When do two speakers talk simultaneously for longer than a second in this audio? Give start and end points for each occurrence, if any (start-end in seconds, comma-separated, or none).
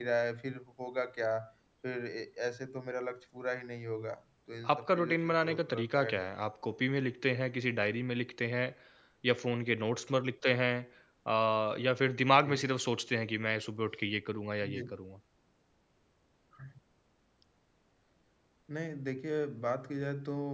4.7-6.2